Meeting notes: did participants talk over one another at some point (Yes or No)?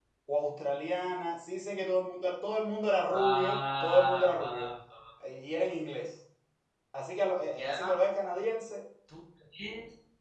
Yes